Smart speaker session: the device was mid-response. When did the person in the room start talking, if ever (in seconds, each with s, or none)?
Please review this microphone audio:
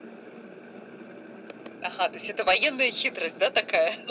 none